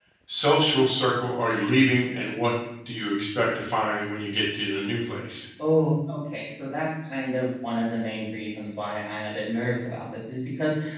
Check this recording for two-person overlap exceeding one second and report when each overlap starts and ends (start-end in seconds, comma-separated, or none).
none